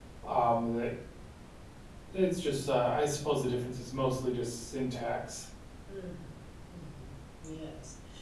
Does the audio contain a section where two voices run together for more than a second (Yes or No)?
No